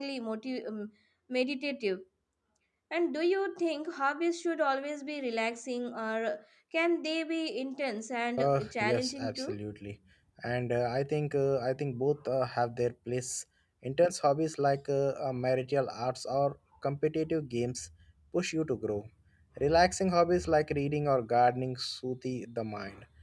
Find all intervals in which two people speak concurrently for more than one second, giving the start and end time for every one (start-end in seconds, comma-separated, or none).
8.4-9.6